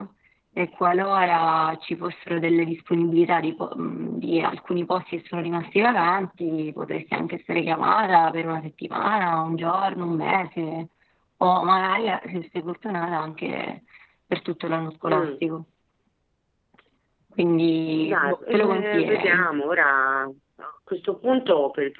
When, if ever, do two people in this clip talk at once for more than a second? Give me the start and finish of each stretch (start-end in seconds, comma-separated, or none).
18.0-19.5